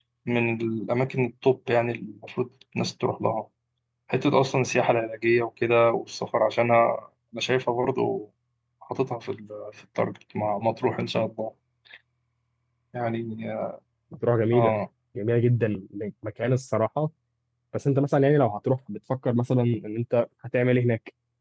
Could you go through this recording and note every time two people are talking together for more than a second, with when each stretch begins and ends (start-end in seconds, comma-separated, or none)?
none